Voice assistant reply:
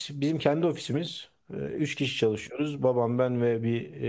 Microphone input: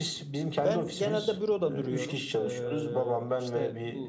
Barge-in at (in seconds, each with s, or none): 0.6 s